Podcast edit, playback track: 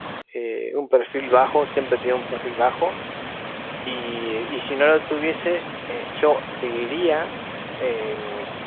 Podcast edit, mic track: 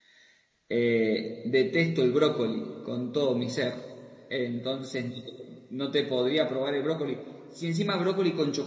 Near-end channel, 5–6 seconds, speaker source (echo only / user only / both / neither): user only